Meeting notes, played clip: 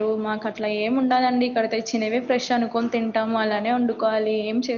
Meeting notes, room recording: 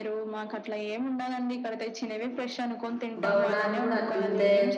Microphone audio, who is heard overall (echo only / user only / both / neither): both